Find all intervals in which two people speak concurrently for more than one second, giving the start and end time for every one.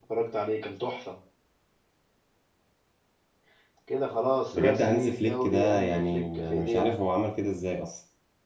4.5-7.0

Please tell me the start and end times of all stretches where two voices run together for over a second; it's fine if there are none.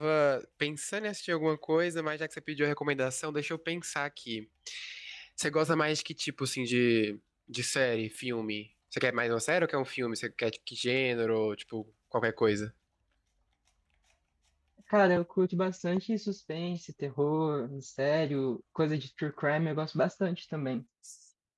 none

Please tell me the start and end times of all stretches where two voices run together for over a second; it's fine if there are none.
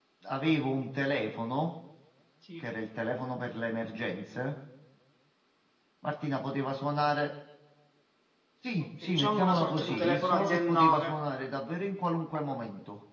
9.0-11.1

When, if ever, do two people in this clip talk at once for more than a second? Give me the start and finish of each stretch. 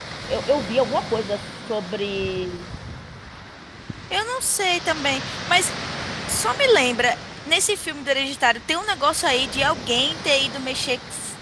none

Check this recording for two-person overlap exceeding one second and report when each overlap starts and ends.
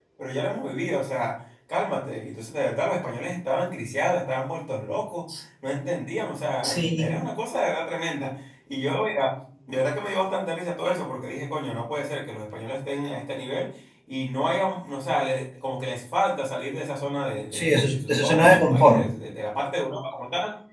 17.5-19.1

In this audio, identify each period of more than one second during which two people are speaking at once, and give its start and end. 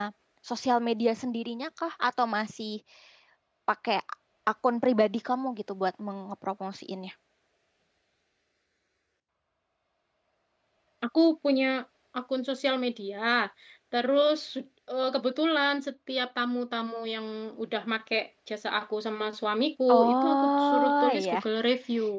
19.9-21.4

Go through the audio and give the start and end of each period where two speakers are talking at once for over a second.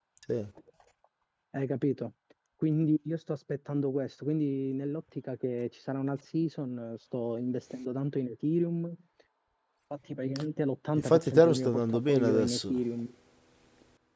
10.9-12.7

